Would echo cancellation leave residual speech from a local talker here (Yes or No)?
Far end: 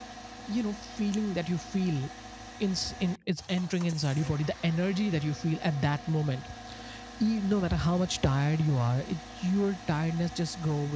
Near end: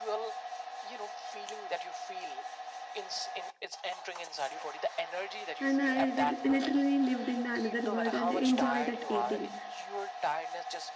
Yes